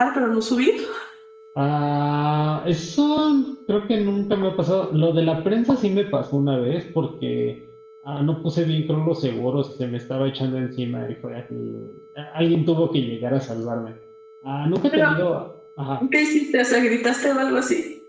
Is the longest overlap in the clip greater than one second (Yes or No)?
No